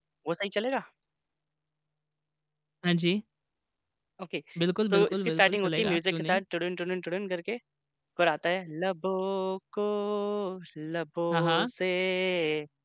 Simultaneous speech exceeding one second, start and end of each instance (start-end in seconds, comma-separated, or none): 4.9-6.4